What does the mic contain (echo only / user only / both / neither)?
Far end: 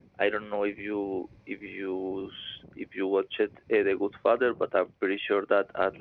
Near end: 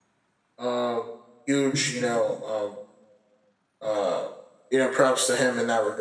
user only